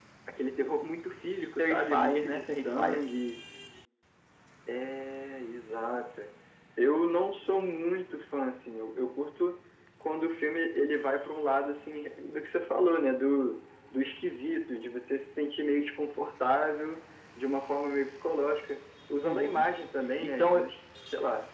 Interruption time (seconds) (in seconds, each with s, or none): 1.6 s